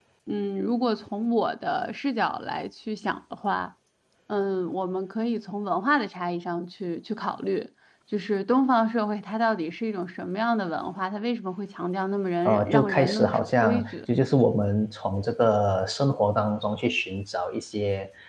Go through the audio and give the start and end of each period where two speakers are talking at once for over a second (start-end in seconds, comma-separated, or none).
12.4-13.9